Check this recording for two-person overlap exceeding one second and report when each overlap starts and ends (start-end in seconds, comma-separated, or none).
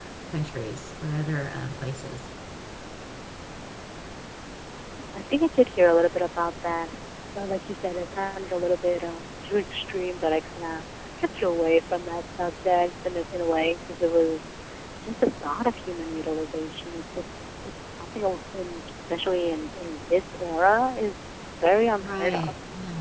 none